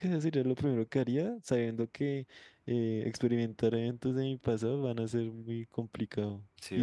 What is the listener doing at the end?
listening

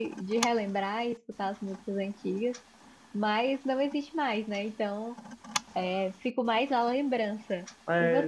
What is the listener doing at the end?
taking over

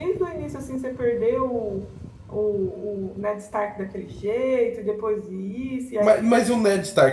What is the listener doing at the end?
taking over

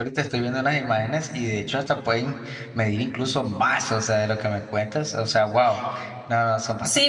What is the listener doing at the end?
taking over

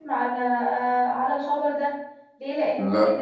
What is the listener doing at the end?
listening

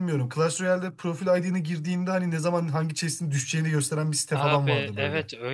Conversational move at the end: taking over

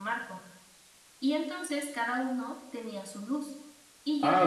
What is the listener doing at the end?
taking over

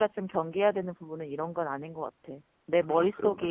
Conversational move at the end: listening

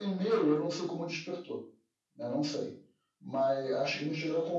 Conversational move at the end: listening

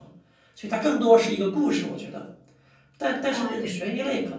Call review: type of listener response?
listening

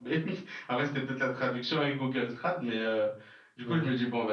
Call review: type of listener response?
listening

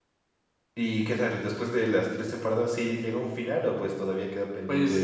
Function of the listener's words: taking over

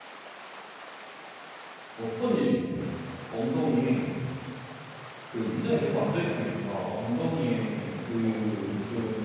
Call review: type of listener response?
listening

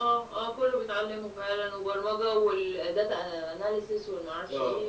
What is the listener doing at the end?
taking over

